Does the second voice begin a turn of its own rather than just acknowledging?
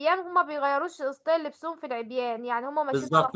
Yes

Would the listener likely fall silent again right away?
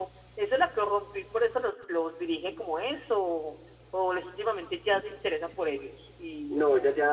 No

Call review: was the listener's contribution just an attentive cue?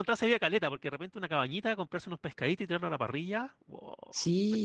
No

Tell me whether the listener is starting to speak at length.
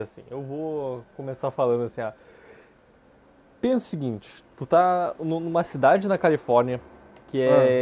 No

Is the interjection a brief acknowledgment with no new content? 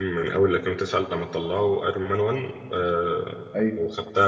Yes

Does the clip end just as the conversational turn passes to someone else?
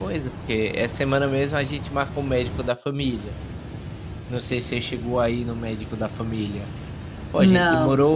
No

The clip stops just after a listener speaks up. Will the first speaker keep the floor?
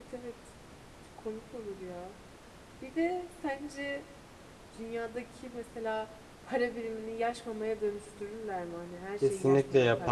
No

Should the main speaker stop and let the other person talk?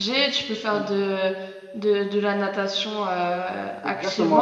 Yes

